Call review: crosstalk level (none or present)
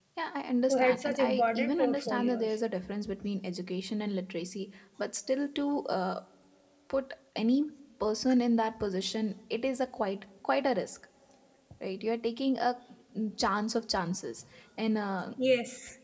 present